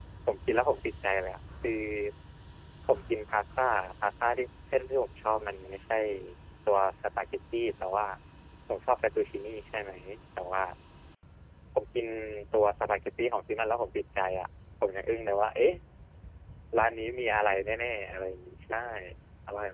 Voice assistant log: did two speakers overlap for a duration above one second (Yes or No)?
No